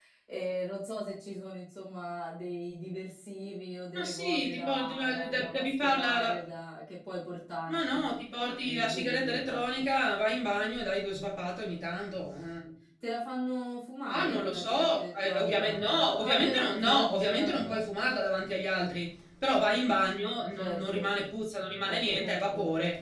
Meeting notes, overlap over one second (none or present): present